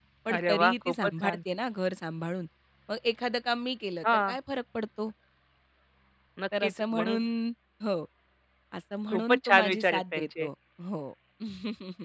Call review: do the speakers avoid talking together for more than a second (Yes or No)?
No